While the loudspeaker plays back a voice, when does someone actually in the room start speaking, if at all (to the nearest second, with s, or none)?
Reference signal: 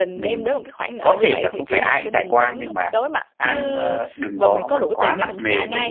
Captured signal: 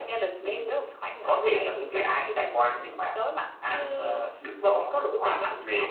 none